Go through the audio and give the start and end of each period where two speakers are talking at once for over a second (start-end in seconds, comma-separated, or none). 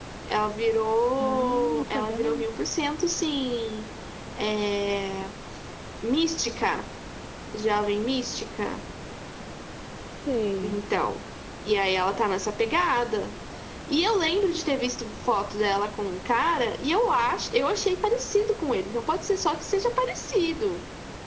1.2-2.4